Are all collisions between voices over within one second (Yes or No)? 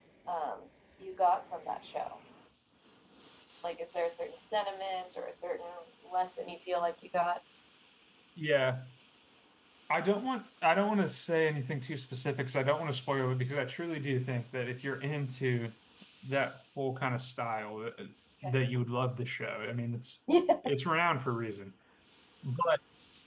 Yes